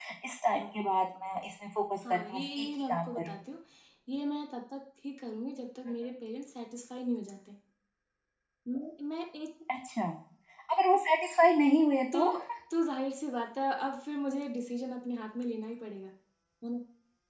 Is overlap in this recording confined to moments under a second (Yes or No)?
No